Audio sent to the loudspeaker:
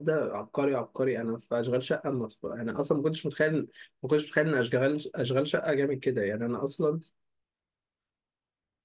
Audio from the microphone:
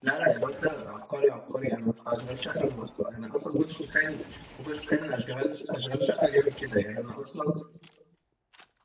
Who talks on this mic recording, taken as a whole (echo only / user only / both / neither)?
echo only